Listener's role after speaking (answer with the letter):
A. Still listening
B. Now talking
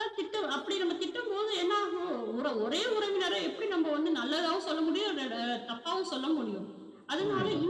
A